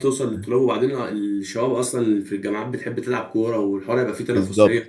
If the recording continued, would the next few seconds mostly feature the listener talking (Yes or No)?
Yes